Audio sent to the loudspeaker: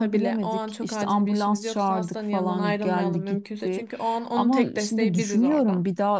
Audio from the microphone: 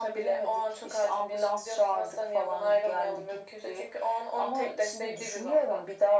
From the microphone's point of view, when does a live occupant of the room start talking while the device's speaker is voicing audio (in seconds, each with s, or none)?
none